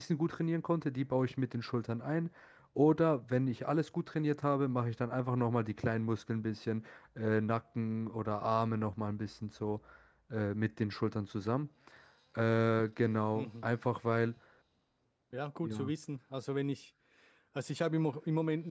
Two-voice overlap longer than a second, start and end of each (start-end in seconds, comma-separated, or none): none